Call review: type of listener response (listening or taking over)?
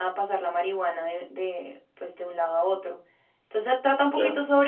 listening